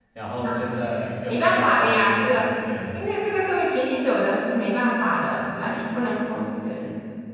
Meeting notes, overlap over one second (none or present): present